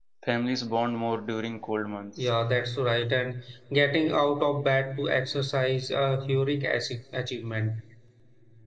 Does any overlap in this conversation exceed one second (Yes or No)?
No